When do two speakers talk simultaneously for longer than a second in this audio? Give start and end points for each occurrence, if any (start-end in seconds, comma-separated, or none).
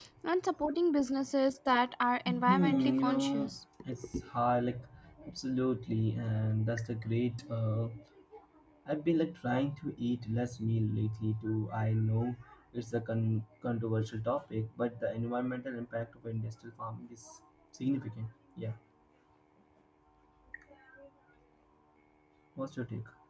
2.3-3.5